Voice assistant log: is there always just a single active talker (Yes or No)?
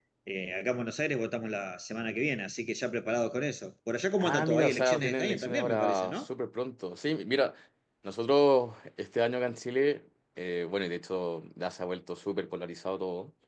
No